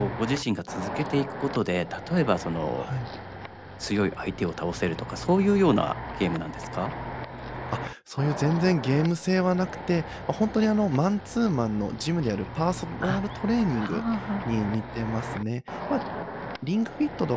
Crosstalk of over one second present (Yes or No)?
No